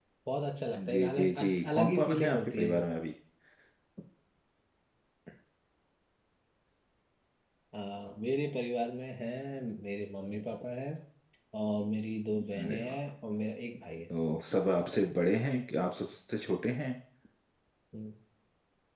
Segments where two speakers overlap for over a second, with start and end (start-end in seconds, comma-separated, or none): 0.9-2.8